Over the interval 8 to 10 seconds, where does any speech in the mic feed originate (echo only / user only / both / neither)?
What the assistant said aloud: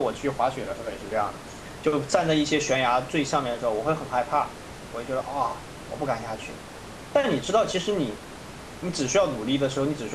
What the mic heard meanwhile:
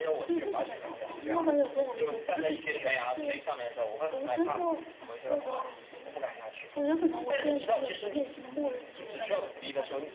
both